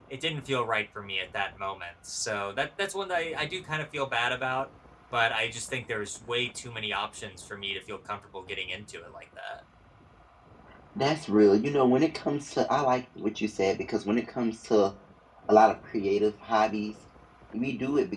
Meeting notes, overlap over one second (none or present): none